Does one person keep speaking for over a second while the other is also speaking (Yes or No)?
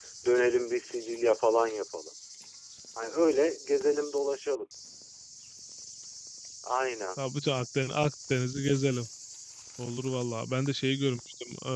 No